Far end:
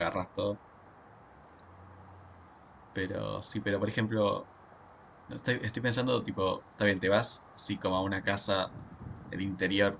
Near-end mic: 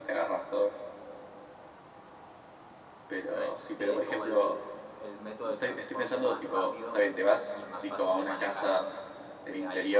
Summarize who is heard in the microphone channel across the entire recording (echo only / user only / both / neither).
both